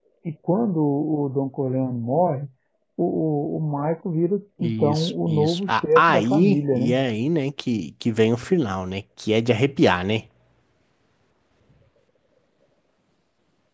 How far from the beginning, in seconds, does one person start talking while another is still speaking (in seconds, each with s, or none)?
4.6 s